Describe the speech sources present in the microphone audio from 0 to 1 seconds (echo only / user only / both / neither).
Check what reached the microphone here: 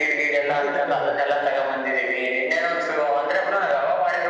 both